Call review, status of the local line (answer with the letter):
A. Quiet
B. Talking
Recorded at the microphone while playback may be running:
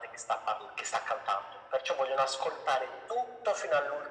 A